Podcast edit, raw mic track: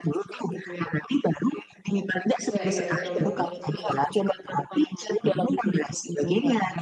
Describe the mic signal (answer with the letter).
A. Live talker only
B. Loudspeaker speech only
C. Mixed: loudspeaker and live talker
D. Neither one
C